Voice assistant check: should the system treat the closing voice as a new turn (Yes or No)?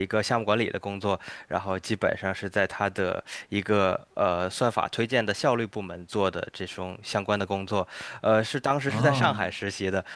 No